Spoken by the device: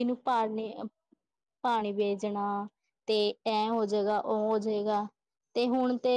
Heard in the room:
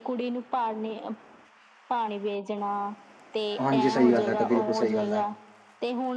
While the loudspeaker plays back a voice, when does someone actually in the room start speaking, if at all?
3.6 s

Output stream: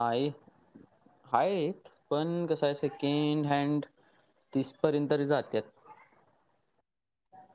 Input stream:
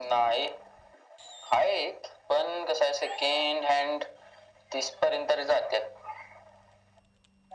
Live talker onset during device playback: none

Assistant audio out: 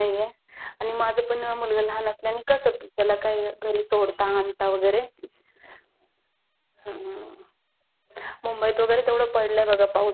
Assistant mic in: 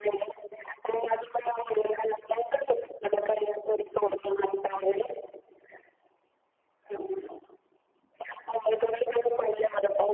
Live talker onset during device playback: none

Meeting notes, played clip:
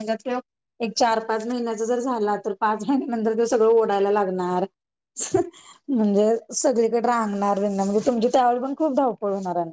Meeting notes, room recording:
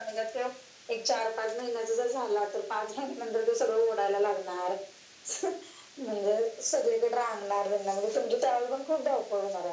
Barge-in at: none

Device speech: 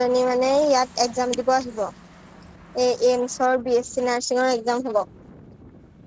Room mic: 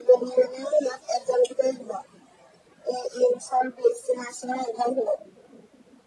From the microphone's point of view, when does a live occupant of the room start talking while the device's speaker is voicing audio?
none

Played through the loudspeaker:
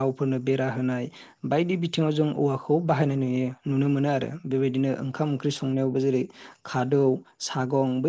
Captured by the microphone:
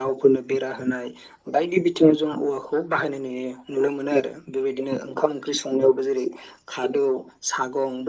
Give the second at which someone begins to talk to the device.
none

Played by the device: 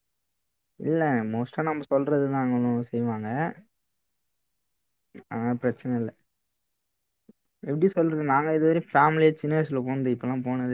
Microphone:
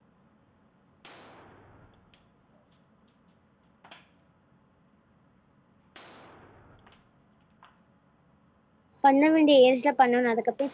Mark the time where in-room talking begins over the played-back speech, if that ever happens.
9.0 s

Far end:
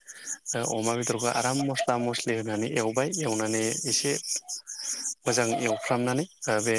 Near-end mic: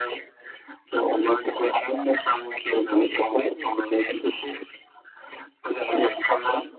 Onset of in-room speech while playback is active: none

